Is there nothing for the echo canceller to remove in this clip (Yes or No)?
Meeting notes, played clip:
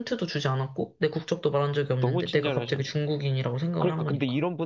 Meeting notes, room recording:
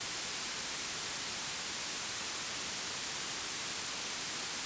Yes